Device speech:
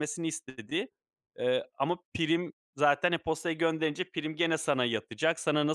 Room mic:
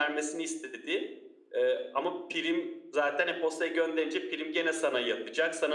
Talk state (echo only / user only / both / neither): echo only